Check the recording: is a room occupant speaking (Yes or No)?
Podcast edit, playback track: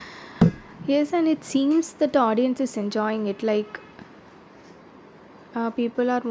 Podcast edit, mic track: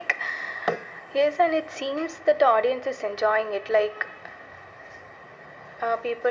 No